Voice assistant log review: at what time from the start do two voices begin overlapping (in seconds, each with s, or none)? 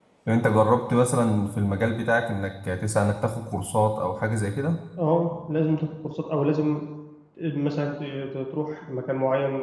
none